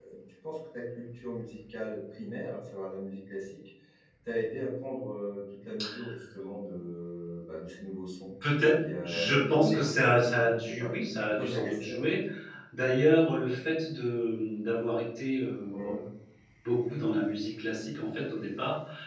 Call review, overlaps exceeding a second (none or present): present